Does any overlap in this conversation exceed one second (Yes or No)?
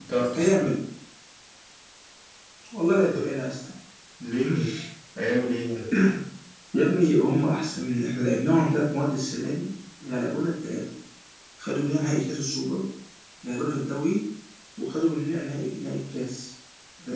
No